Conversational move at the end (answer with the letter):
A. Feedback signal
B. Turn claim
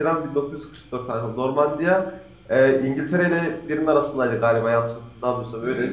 B